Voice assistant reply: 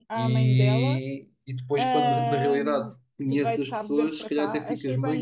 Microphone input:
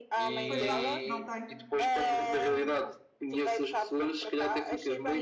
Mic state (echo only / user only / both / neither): both